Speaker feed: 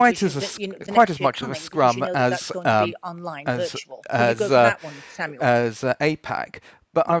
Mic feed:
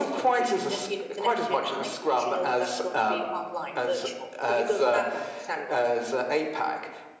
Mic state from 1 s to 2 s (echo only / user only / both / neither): echo only